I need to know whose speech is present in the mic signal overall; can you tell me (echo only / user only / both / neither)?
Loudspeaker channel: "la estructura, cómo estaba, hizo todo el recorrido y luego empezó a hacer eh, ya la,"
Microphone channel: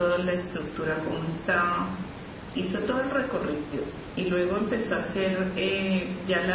echo only